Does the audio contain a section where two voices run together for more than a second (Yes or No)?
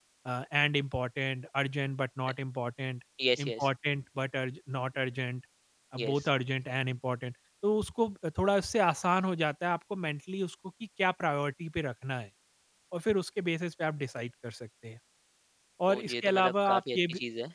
Yes